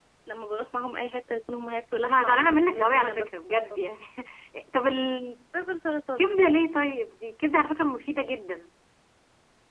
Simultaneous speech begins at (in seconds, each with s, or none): 2.0 s